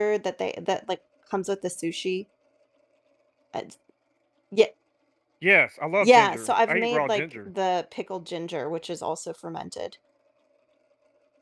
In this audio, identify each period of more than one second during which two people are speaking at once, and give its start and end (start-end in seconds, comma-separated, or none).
6.0-7.5